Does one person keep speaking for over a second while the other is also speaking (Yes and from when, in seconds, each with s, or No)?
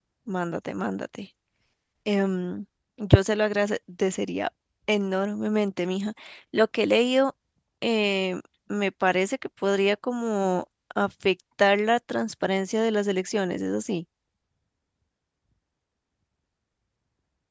No